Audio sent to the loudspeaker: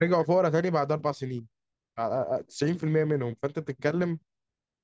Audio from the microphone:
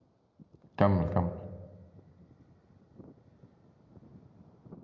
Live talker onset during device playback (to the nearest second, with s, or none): 1 s